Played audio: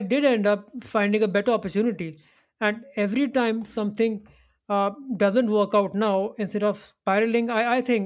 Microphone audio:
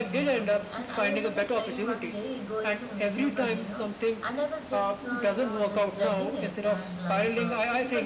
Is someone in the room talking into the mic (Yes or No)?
Yes